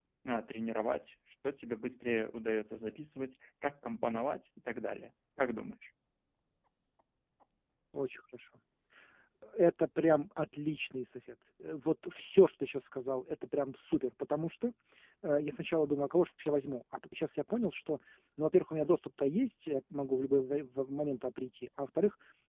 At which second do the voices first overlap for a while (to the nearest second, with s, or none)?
none